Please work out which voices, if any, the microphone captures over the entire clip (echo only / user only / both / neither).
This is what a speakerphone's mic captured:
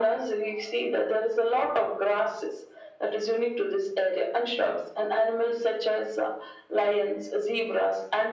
echo only